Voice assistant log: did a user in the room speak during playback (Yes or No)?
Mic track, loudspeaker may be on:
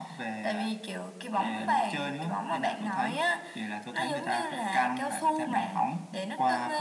No